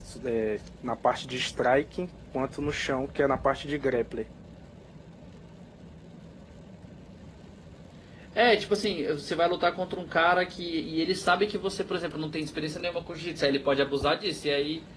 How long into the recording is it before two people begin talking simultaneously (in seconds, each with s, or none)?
none